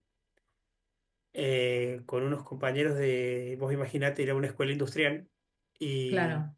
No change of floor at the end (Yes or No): Yes